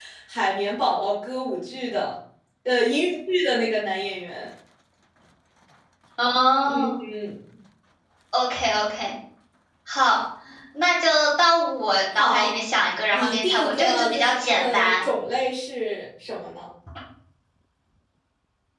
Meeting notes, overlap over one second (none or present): present